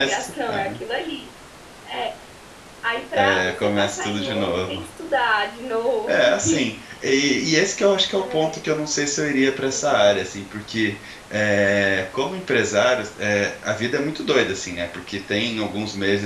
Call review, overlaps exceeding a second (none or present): present